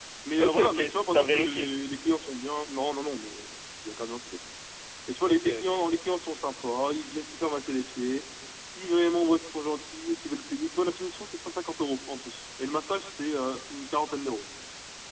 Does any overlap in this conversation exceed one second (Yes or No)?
Yes